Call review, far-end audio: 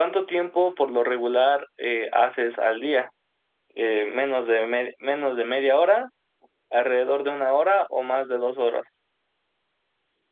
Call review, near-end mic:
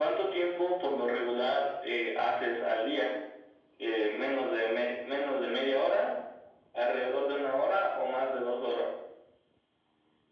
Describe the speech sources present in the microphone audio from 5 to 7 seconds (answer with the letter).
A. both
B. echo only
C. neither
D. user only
B